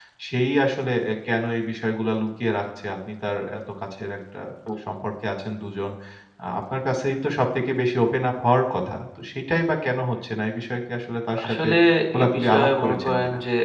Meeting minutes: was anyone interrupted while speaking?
Yes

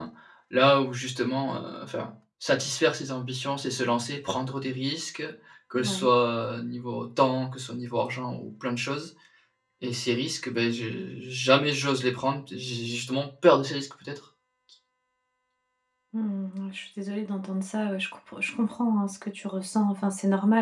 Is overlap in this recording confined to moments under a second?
Yes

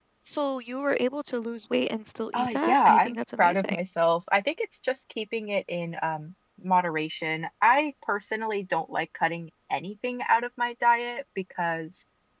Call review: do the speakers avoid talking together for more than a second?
No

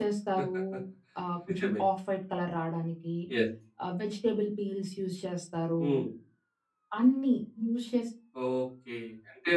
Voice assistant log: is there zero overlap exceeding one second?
Yes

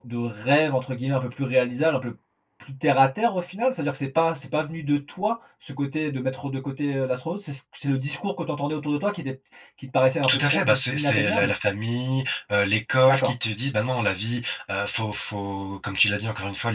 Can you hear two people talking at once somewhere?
Yes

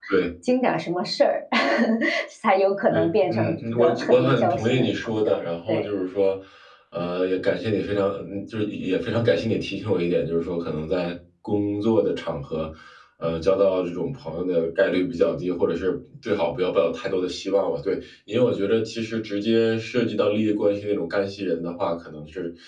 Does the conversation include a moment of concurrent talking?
Yes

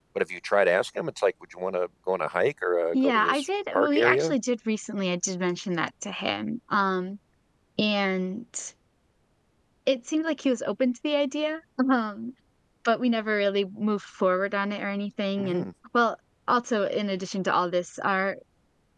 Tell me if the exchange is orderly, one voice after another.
No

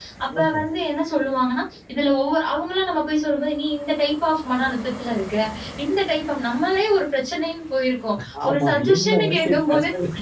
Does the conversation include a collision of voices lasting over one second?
Yes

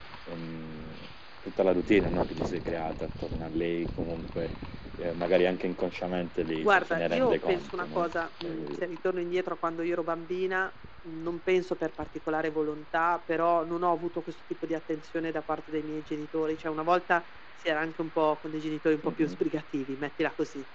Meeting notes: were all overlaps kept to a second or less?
No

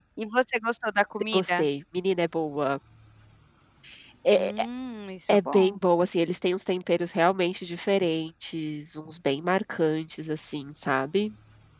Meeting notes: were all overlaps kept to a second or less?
Yes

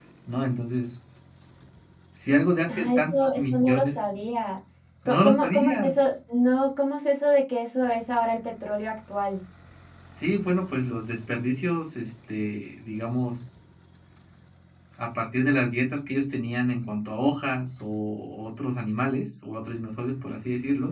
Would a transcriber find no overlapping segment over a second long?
No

